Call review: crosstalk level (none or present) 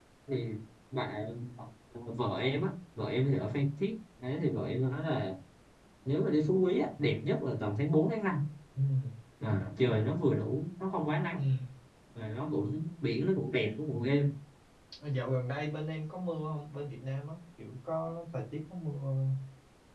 none